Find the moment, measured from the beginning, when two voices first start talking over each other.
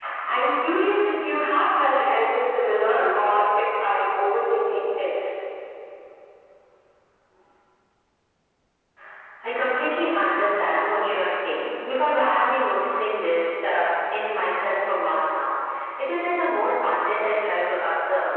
none

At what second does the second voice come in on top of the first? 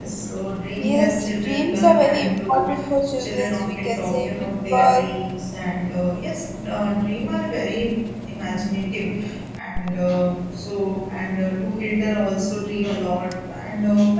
1 s

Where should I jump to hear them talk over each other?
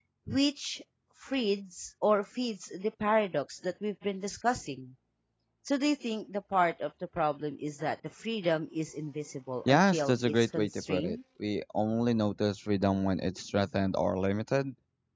10 s

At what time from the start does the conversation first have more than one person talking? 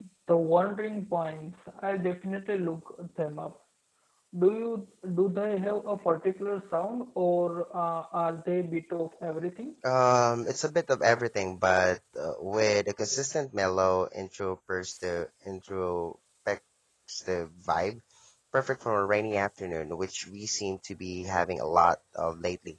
none

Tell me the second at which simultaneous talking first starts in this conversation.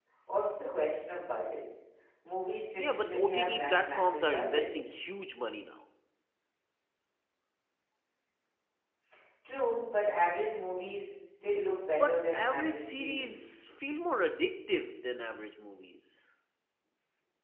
3 s

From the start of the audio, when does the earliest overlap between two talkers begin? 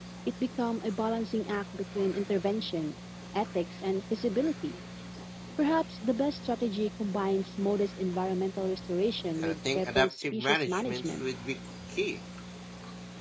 9 s

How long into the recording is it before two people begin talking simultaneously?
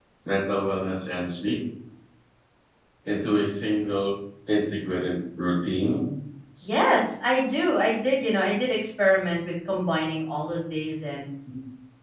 none

